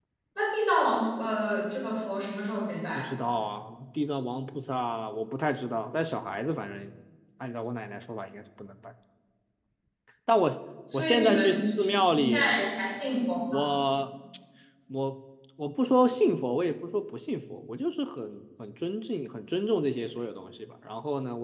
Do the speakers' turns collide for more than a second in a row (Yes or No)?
Yes